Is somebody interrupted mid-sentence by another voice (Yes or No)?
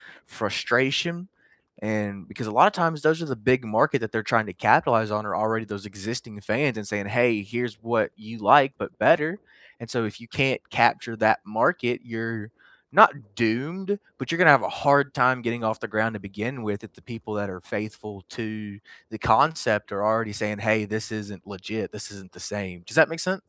No